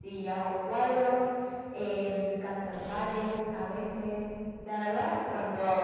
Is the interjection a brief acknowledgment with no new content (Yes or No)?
No